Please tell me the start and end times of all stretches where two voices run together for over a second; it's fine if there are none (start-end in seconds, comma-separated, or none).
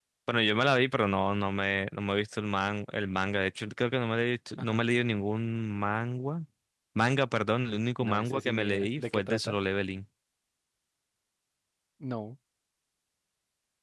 8.0-9.6